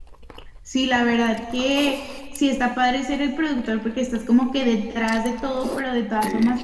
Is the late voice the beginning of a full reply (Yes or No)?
No